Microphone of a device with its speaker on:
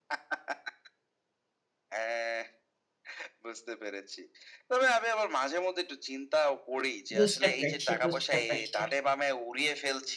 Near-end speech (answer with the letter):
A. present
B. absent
A